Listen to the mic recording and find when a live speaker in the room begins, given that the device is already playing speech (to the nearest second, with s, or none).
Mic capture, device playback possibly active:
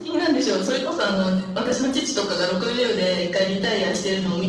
none